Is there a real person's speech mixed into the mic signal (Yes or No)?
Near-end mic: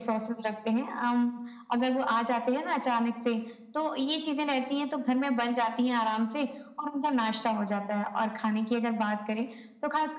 No